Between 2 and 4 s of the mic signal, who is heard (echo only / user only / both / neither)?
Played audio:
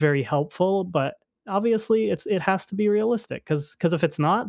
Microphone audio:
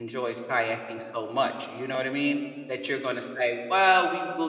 user only